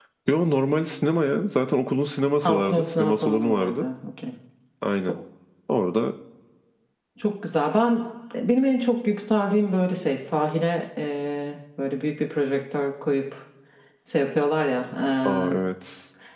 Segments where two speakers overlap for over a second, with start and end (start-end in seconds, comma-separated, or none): 2.4-3.8